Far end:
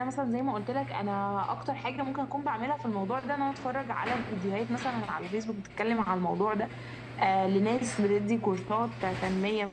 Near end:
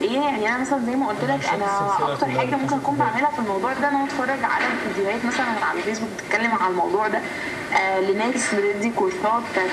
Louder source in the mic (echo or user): echo